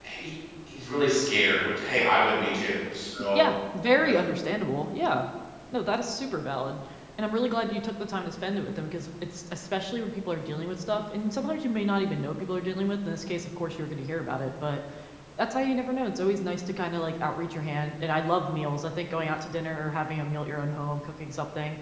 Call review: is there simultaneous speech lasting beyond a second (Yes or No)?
No